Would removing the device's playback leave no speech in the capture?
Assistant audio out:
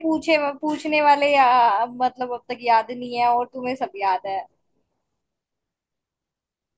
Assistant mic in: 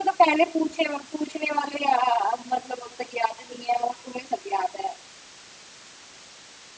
Yes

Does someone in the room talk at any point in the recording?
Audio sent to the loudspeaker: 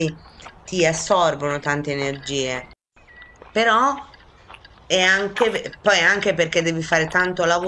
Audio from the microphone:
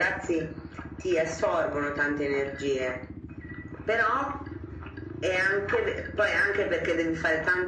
No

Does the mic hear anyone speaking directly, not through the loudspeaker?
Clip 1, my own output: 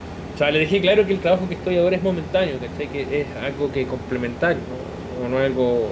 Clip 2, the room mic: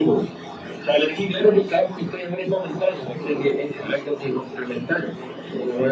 No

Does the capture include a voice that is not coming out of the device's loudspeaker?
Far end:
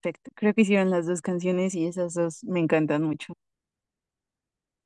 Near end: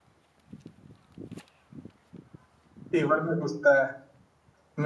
Yes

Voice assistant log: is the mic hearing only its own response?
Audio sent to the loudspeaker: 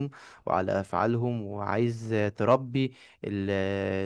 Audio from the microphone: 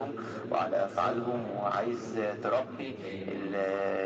No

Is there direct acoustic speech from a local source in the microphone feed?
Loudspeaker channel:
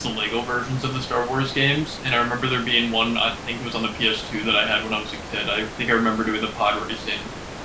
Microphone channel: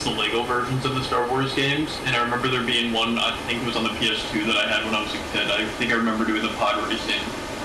No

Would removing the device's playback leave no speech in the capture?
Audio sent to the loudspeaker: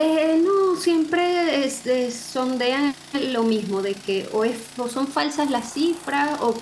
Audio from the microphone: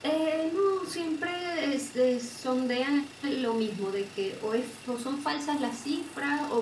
Yes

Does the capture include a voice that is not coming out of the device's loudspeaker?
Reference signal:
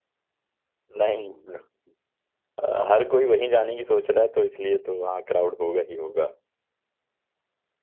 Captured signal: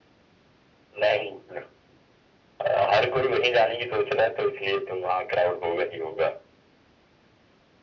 No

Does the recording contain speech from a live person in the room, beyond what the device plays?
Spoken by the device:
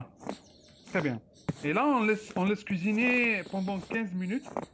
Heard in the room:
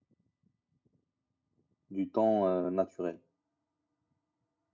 Yes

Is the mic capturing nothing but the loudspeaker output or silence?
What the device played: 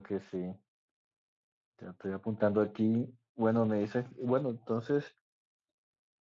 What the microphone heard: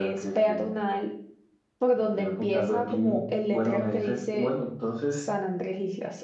No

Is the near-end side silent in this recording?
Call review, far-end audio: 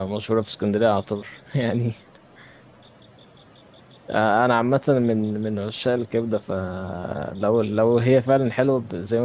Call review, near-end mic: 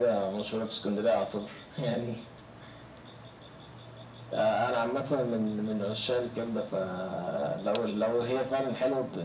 Yes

